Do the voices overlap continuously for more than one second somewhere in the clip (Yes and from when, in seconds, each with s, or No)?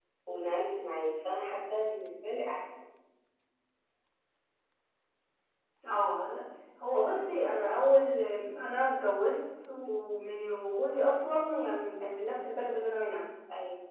No